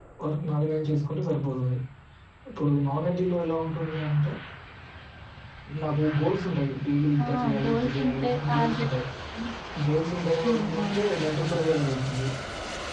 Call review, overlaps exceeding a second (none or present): present